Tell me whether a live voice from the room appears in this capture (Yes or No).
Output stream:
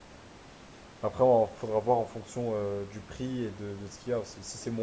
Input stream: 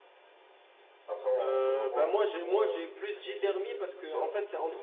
Yes